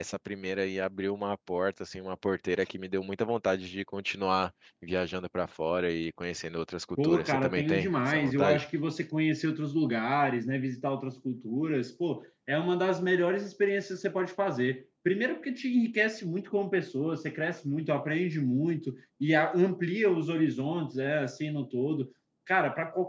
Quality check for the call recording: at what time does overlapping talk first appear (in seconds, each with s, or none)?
7.0 s